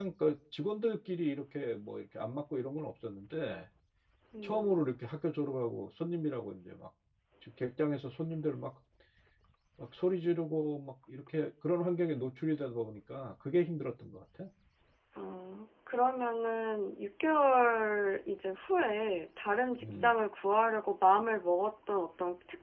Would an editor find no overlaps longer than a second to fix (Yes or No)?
Yes